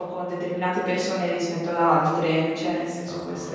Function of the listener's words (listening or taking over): taking over